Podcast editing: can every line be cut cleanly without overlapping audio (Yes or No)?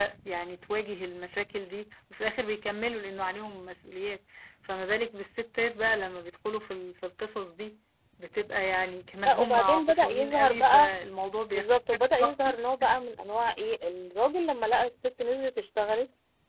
No